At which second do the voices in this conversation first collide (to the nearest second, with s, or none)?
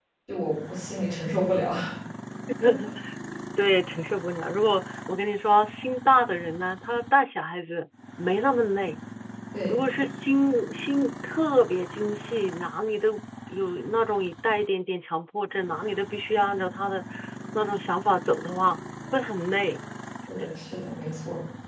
none